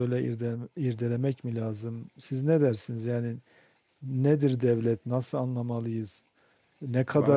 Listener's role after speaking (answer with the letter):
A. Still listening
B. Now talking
A